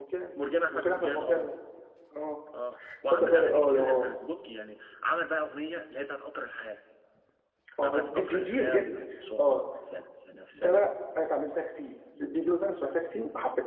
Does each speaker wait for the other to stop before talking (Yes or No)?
No